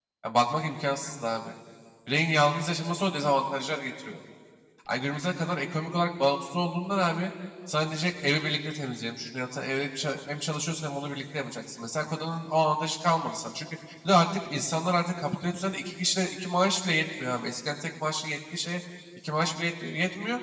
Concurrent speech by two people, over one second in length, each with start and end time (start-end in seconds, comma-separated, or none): none